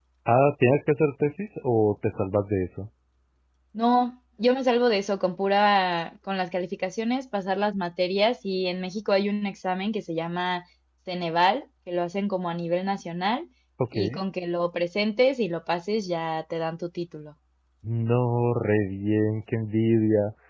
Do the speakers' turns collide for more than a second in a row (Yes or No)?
No